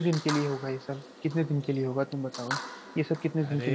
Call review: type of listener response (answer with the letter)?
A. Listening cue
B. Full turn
A